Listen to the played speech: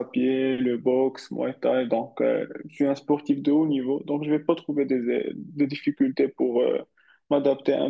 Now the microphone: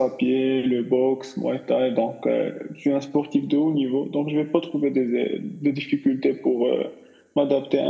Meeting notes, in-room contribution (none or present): none